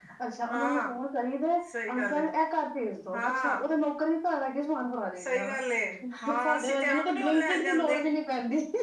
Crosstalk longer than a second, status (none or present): present